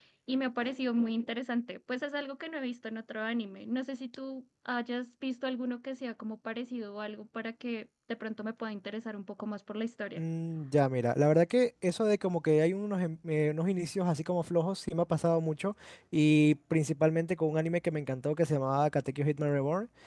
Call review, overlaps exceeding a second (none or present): none